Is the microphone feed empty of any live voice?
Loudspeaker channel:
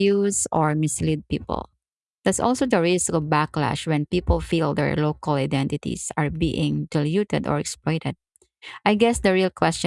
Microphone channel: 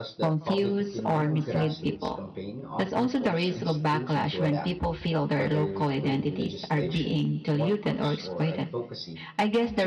No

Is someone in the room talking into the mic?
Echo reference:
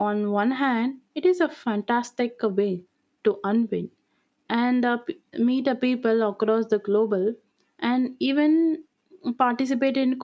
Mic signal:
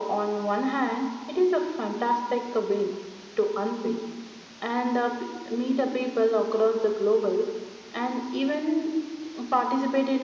No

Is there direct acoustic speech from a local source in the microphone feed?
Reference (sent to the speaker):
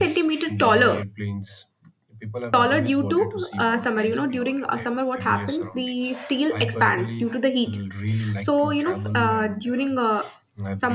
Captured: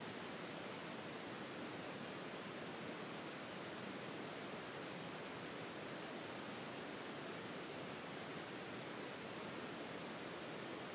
No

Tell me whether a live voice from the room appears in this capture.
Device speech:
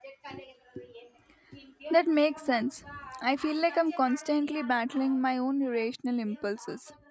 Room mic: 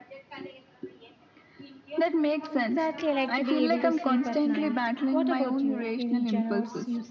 Yes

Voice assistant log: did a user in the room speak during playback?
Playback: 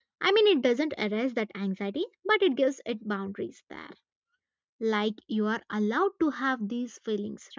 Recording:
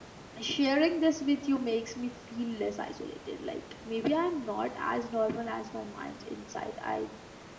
Yes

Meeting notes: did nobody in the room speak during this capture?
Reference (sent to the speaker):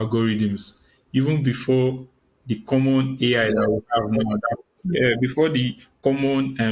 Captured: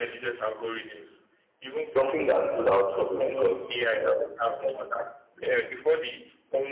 No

